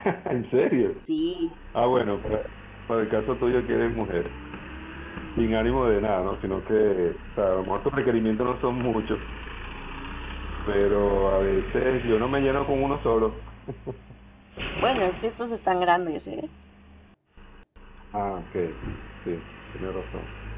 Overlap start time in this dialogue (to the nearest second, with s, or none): none